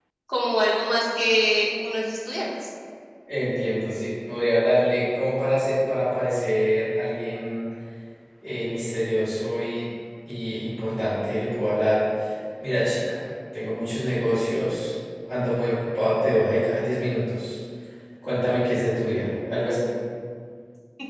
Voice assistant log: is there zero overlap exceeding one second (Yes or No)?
Yes